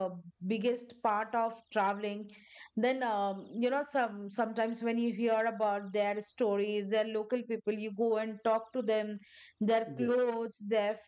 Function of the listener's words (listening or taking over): listening